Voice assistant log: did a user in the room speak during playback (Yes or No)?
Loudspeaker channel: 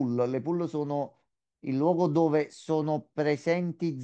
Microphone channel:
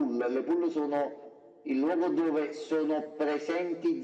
No